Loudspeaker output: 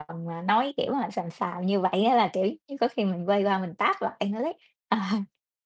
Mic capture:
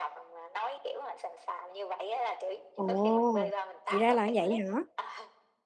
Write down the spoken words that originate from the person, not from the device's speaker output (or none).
Ồ, thì ra là vậy hả?